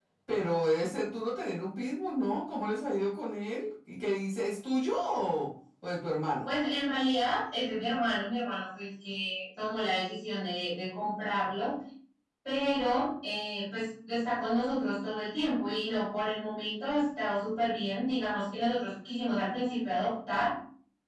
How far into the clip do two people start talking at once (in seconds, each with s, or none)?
none